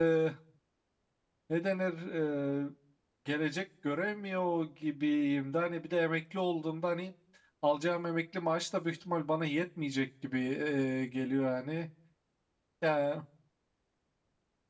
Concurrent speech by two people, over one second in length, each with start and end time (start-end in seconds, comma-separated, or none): none